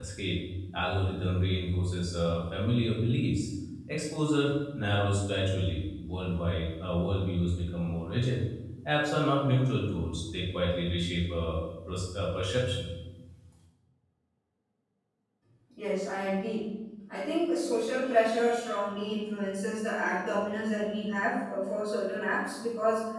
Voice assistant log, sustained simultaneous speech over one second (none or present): none